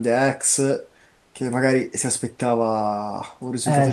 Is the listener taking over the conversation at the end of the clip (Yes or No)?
Yes